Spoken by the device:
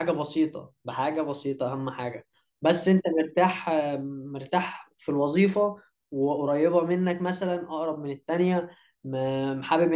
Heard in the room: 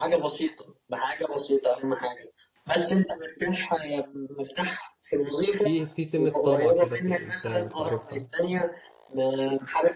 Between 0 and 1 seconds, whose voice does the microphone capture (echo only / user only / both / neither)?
echo only